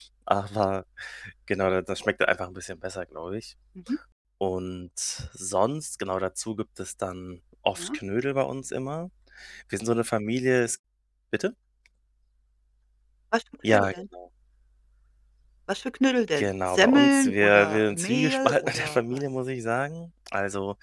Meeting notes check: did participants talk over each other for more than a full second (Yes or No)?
Yes